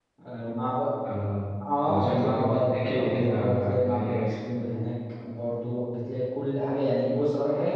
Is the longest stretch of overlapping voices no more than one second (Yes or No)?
No